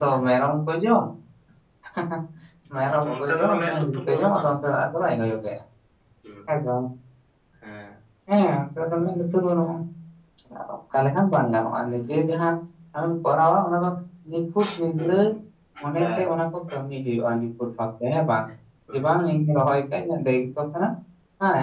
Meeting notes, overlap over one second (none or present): present